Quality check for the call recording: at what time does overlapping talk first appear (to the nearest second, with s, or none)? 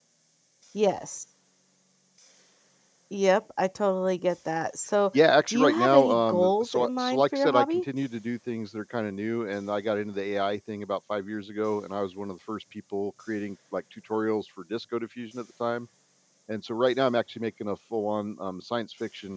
5 s